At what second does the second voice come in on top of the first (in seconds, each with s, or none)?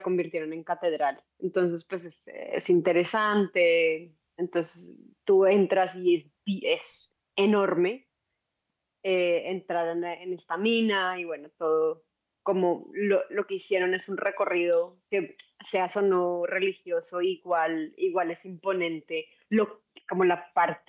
none